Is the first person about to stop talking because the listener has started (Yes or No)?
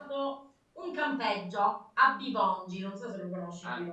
Yes